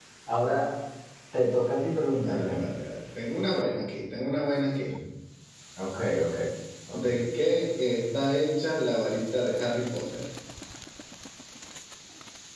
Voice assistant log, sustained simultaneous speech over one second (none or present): none